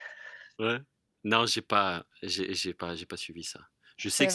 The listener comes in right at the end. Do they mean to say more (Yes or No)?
No